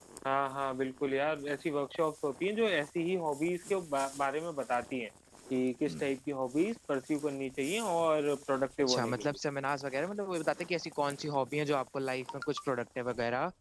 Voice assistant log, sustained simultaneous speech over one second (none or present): none